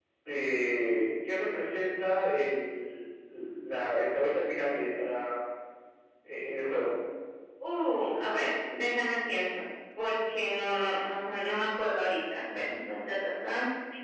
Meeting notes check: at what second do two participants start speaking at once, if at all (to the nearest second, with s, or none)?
none